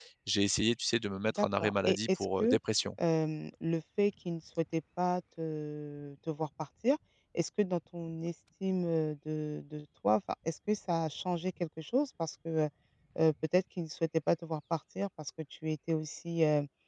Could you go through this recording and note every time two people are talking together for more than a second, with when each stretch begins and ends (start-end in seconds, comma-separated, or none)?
1.3-2.6